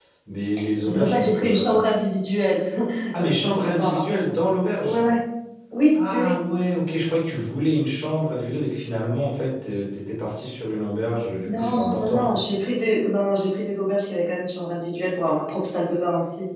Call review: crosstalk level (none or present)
present